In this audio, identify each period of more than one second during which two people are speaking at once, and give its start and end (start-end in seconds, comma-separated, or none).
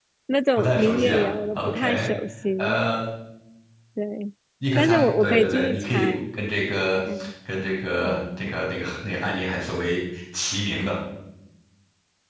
0.6-2.1, 4.8-6.2